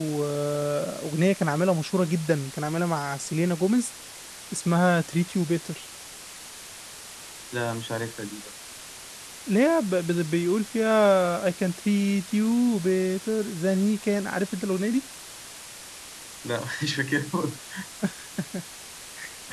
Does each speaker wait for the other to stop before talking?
Yes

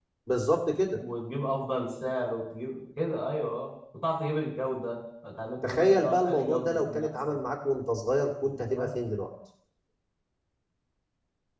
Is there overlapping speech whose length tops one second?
Yes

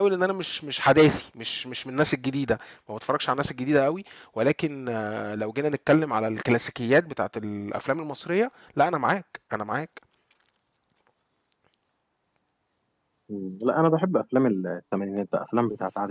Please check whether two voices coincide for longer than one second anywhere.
No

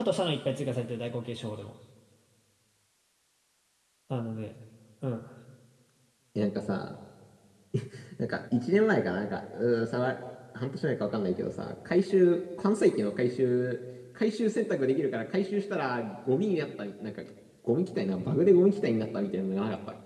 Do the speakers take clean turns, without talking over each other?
Yes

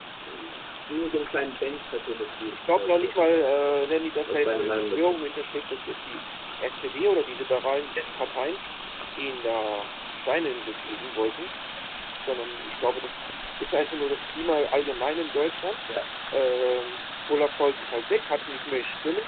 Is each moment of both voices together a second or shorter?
No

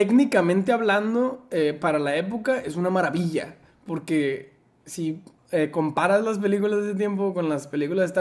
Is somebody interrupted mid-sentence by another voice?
No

